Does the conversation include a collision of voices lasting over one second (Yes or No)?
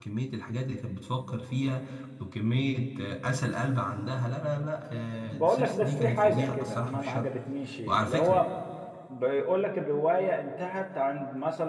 Yes